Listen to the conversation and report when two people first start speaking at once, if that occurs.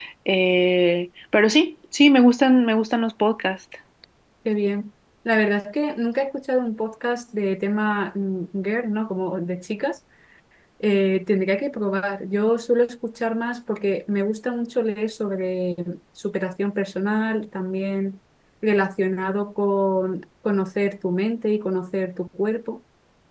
none

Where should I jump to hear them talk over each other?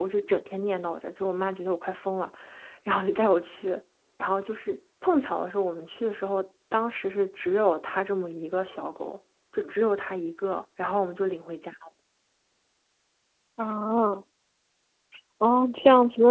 none

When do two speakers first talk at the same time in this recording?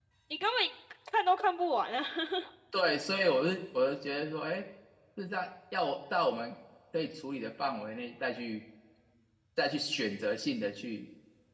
none

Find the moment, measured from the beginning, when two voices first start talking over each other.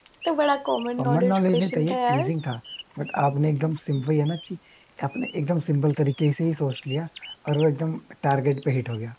1.0 s

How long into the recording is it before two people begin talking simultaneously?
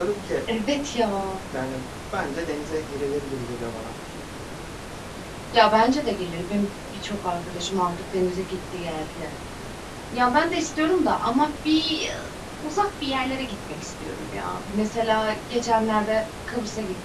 none

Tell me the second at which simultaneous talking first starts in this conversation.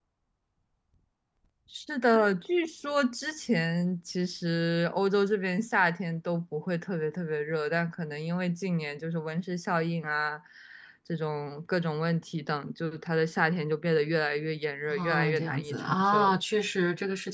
14.9 s

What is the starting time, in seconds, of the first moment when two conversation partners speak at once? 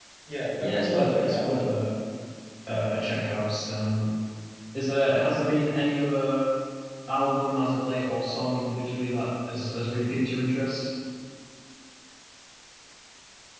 0.6 s

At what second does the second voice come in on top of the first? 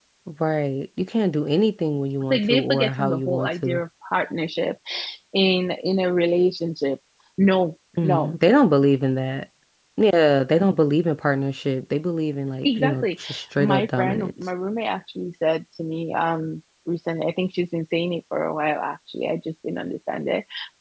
2.3 s

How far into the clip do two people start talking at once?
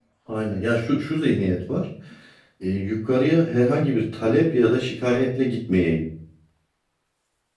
none

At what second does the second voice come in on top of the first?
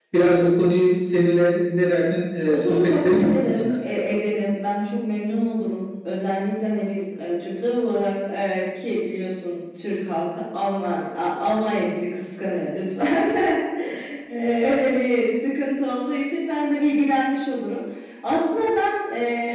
2.5 s

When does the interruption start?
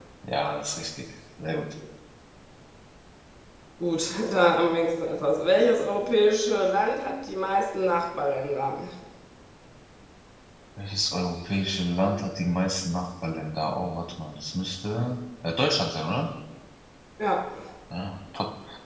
none

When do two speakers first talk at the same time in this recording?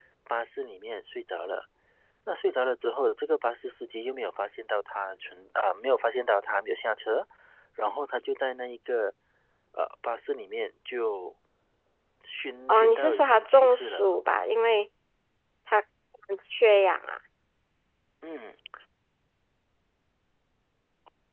12.7 s

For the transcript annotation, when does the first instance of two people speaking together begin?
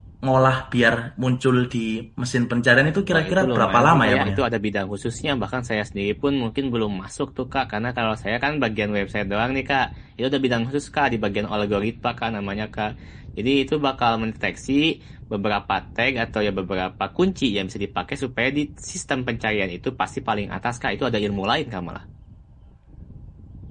3.1 s

